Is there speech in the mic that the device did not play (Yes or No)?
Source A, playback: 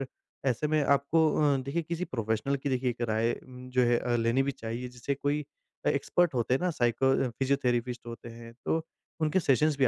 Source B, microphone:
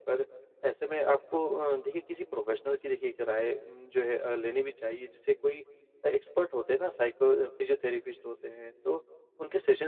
No